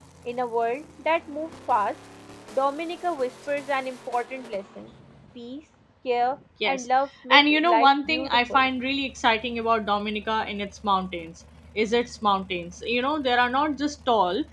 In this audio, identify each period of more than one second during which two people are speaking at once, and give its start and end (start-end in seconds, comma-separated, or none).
7.3-8.6